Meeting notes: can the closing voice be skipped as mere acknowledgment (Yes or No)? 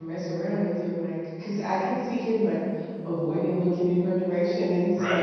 Yes